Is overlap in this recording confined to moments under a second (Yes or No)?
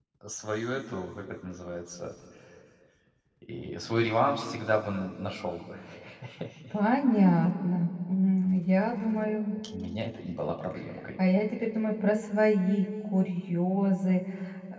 Yes